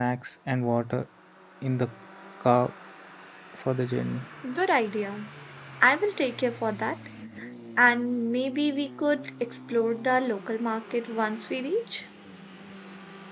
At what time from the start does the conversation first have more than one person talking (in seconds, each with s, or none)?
none